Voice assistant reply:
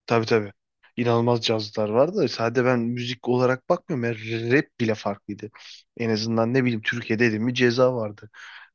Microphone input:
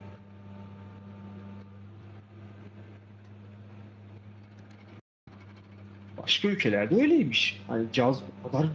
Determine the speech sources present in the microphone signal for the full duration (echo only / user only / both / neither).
user only